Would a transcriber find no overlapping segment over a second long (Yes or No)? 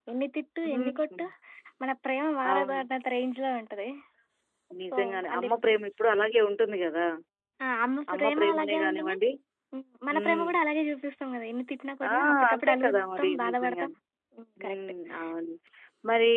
No